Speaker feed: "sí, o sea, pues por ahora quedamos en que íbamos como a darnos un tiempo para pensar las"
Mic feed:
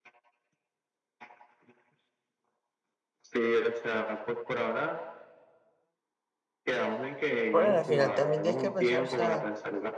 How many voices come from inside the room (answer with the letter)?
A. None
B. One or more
B